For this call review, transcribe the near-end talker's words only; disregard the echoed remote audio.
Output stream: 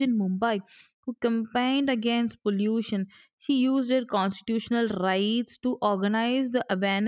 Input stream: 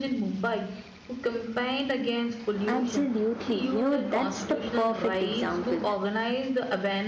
Absolutely. You know, that's the perfect example.

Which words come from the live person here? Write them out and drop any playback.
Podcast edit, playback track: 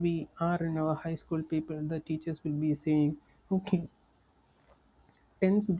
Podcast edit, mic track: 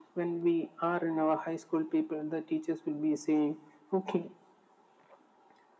none

